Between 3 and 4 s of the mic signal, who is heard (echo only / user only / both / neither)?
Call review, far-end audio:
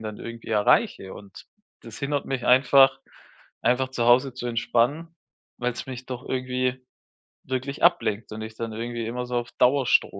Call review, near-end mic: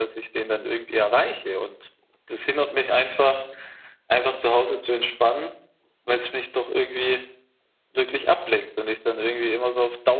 echo only